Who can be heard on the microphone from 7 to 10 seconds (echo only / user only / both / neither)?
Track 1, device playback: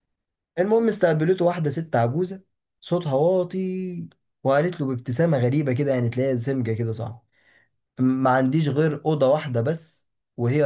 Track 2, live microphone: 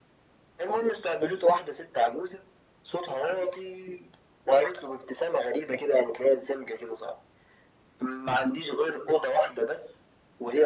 echo only